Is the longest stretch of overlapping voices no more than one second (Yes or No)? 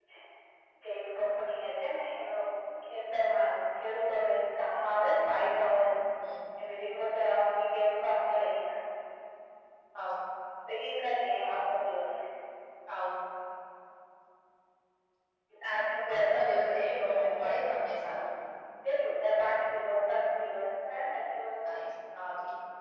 No